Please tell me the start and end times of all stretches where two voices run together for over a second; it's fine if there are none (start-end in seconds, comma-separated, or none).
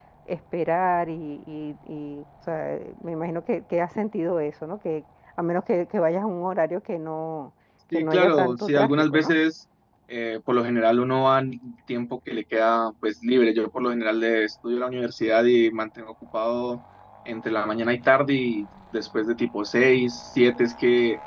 7.9-9.3